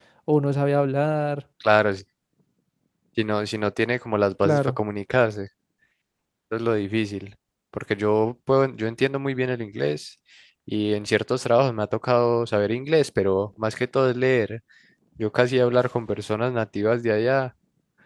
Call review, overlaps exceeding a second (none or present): none